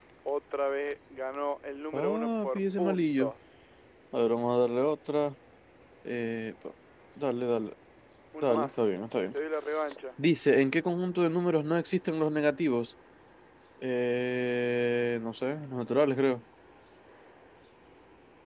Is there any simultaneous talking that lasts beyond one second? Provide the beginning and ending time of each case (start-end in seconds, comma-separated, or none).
1.9-3.3